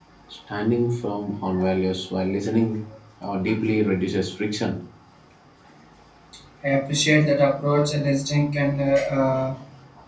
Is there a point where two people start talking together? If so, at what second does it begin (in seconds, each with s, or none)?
none